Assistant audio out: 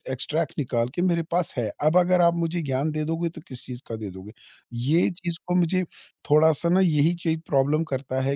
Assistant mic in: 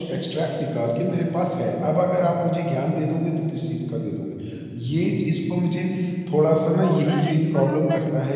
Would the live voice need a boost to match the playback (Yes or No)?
Yes